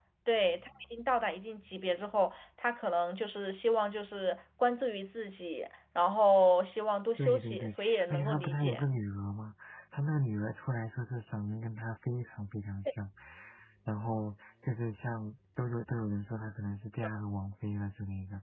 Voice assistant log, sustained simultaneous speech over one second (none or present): present